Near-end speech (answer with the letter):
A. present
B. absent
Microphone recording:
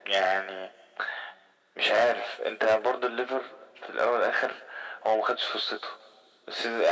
B